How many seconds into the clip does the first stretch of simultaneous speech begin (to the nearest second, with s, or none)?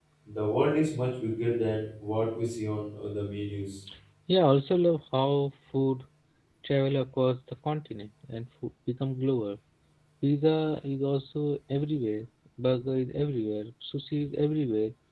none